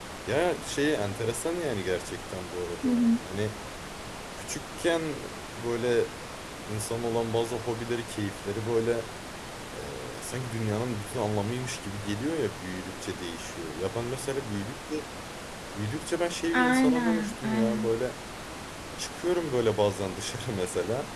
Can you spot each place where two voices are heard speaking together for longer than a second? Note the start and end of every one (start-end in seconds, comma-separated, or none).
16.5-17.9